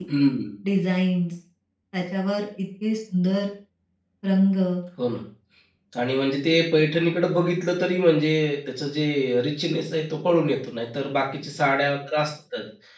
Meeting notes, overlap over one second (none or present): none